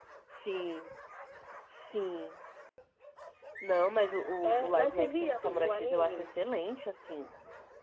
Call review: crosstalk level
present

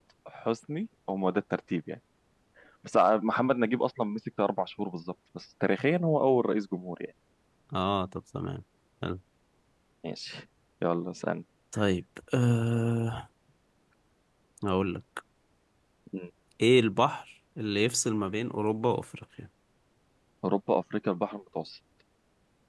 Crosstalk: none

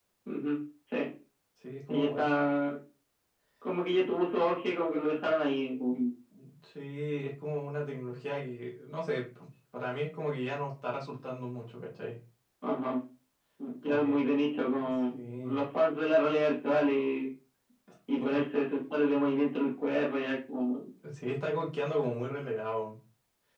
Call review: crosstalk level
present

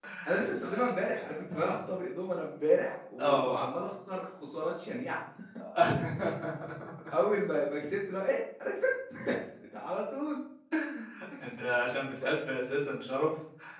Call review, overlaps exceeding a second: none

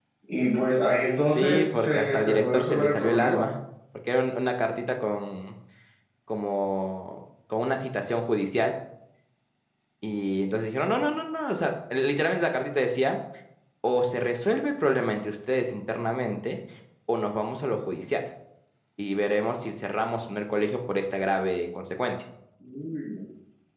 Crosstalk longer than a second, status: present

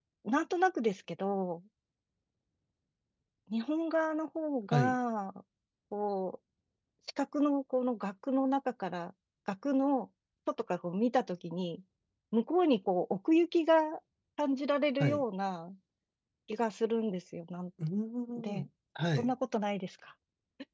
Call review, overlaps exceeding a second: none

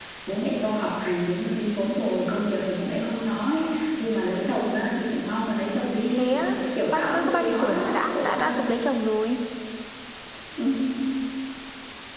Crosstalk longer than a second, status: present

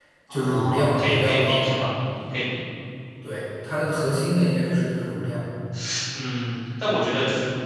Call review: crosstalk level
present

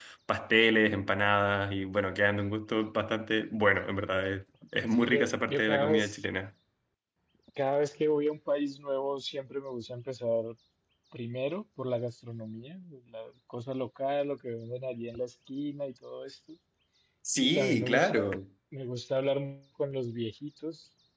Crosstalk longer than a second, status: present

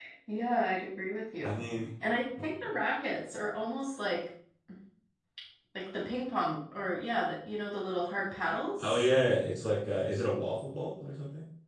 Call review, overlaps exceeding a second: none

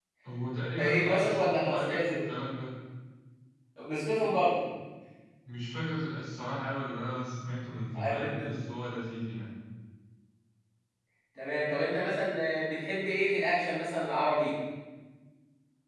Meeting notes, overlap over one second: present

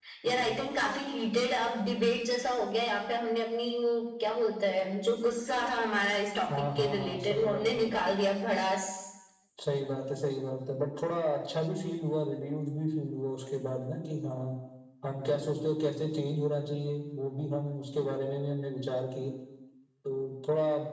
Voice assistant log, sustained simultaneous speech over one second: present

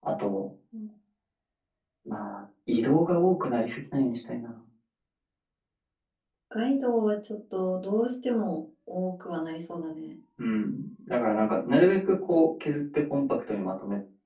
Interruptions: none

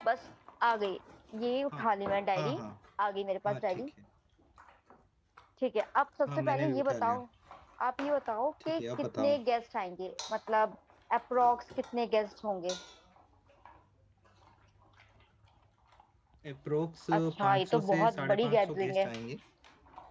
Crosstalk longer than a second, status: present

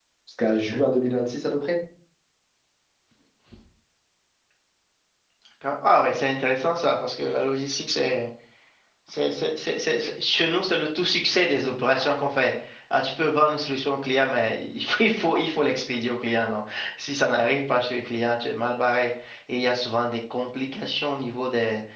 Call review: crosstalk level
none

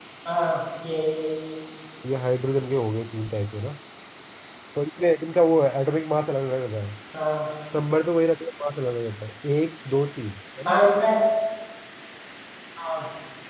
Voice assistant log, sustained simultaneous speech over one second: none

